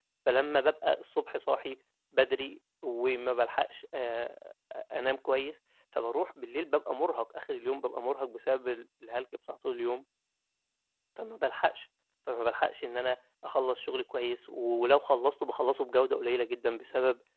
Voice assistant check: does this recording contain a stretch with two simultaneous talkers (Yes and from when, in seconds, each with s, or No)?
No